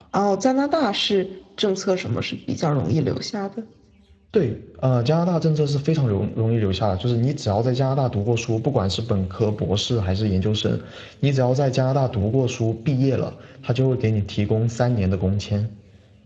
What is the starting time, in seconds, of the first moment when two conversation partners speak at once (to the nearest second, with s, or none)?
none